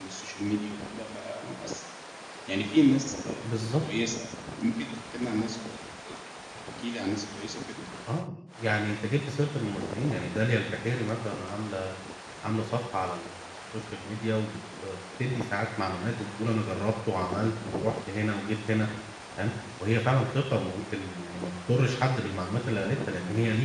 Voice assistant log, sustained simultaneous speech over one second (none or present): none